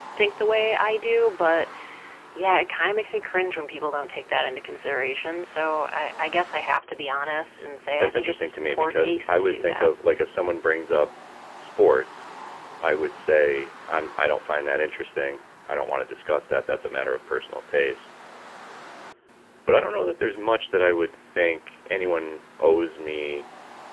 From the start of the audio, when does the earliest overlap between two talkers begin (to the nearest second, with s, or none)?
8 s